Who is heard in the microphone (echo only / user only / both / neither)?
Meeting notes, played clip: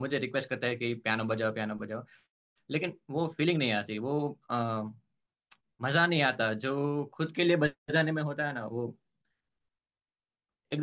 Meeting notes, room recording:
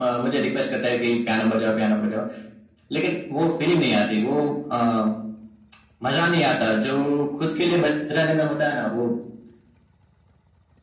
echo only